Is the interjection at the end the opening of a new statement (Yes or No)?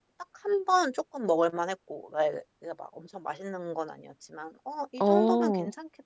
No